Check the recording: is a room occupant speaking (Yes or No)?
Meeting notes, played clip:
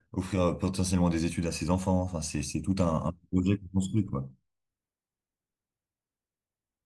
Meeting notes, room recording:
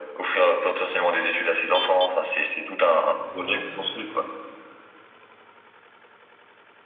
No